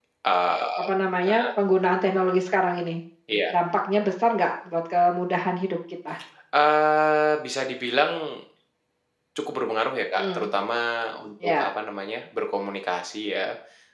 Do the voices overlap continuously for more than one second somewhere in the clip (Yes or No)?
No